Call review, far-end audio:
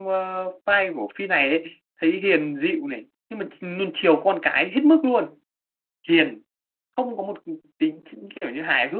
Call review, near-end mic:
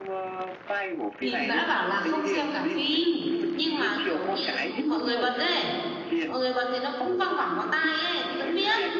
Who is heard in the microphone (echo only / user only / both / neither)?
both